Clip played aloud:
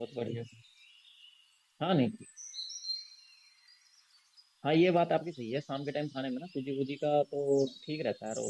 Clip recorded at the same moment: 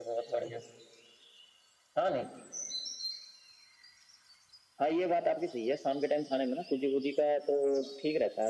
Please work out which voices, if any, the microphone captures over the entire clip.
echo only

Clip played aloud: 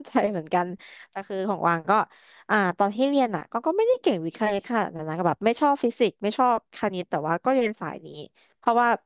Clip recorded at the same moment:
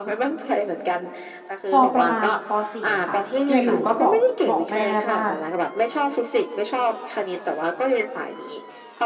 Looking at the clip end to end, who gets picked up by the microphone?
both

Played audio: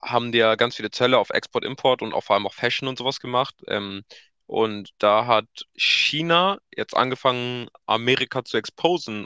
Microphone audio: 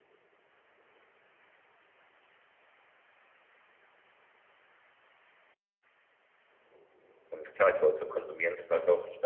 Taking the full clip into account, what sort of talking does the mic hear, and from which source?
user only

